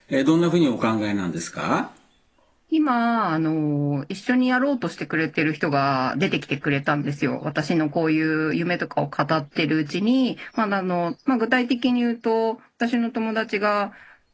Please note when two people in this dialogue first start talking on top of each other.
none

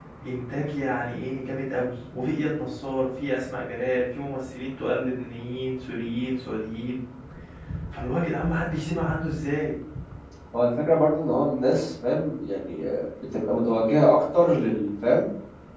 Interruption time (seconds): none

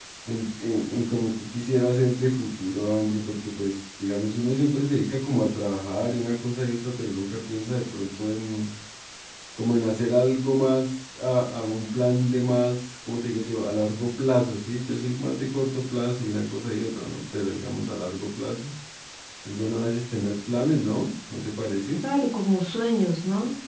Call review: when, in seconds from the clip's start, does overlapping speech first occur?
none

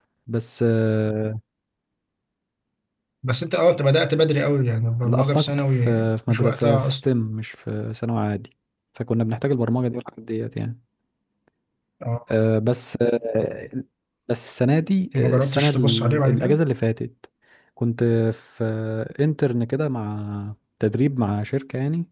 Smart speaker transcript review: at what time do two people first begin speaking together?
5.0 s

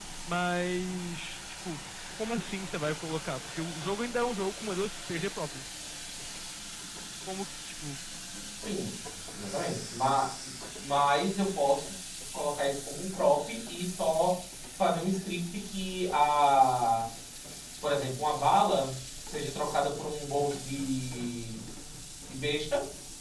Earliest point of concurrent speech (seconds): none

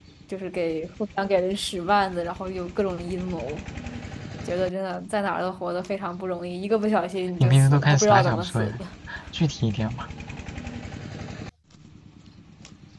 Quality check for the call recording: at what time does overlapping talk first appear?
7.4 s

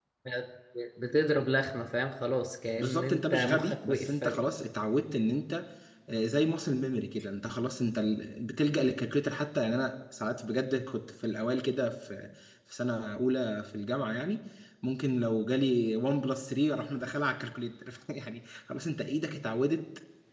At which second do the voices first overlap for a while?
2.8 s

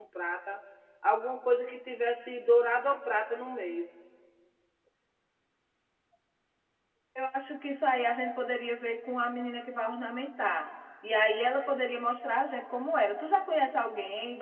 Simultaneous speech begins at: none

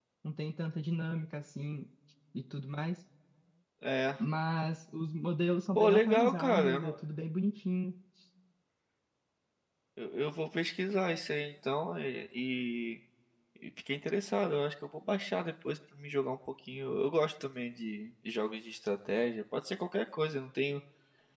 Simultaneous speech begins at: 5.7 s

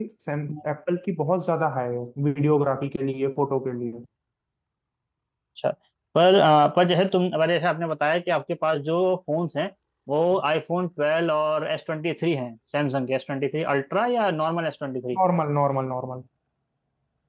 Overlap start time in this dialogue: none

